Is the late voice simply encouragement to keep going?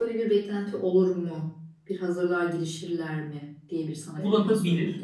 No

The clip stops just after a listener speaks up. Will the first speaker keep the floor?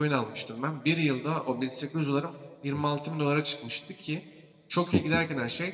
Yes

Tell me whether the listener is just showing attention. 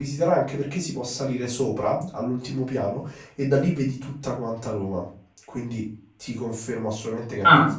Yes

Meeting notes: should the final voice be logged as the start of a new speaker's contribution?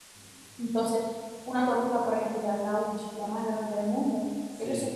No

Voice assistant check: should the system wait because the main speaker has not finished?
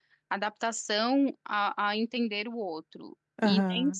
Yes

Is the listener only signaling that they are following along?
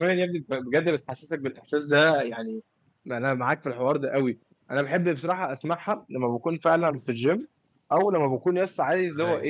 Yes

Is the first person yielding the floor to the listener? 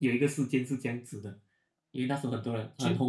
No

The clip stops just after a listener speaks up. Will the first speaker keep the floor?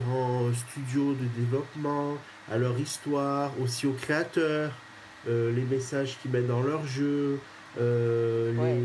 Yes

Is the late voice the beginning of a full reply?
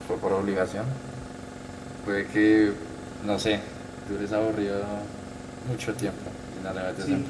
Yes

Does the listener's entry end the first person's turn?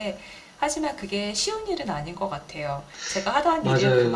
No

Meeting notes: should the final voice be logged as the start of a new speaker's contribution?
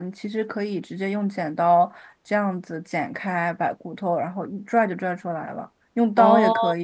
No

